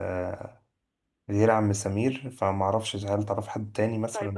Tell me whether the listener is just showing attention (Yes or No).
No